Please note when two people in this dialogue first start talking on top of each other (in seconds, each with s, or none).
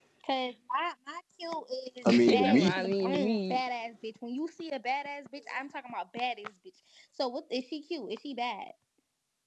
2.1 s